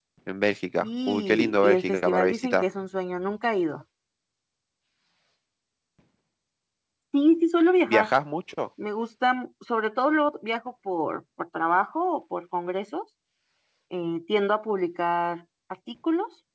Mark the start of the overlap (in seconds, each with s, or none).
0.8 s